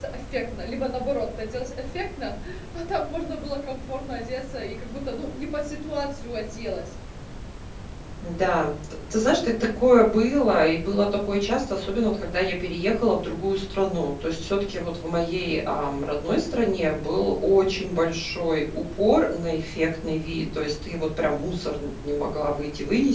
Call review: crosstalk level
none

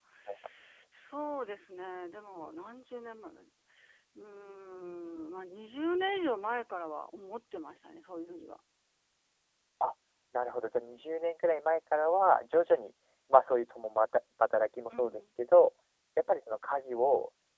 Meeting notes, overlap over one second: none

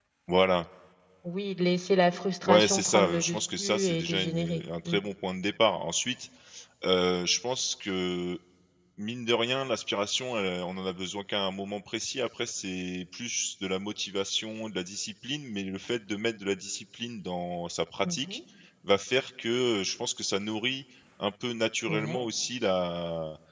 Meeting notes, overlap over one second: present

